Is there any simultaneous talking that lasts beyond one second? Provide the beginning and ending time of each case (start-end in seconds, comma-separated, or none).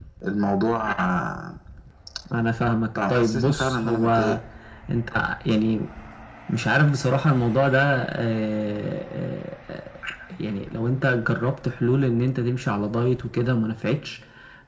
3.0-4.3